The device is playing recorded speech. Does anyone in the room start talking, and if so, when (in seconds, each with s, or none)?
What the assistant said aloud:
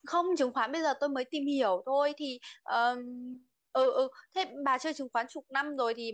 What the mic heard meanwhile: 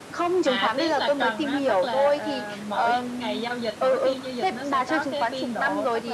0.4 s